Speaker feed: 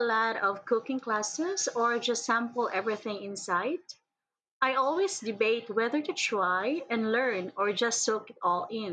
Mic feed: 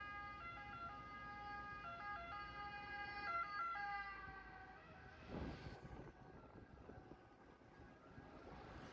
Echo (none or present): none